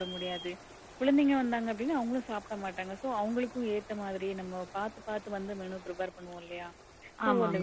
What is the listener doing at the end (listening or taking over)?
listening